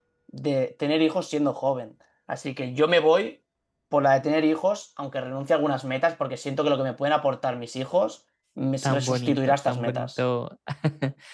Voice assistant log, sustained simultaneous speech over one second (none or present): present